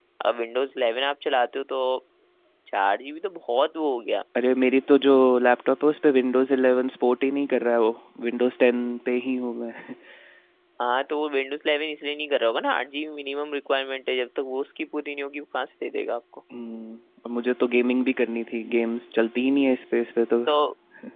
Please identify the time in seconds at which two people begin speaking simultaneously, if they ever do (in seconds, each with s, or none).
none